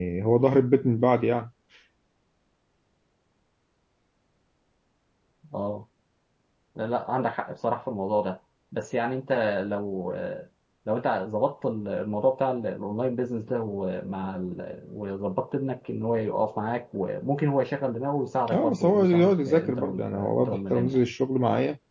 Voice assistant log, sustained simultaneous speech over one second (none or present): present